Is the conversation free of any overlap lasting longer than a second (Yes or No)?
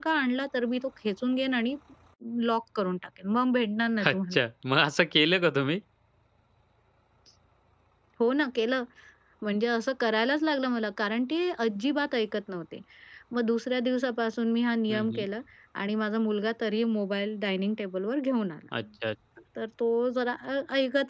Yes